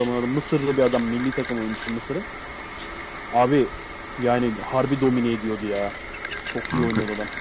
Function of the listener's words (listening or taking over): taking over